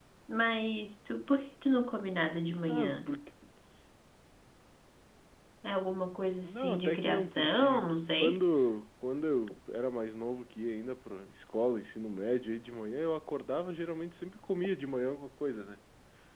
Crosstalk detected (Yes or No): Yes